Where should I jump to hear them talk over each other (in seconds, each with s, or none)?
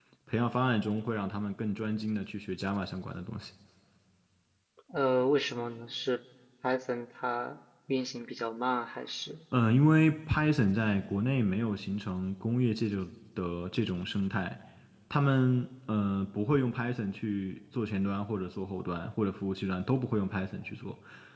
none